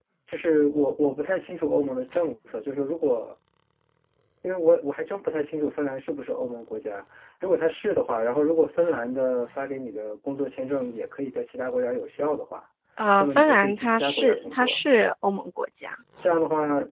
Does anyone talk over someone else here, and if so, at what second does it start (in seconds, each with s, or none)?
13.2 s